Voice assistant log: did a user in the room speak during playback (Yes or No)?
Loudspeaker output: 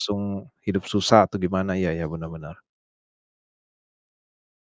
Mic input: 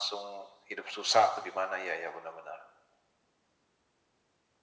No